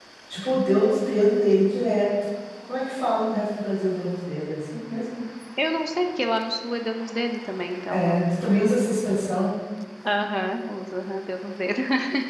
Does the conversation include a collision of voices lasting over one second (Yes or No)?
No